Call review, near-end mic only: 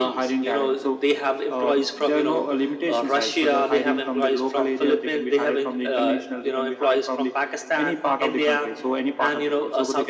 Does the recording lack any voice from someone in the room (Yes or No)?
Yes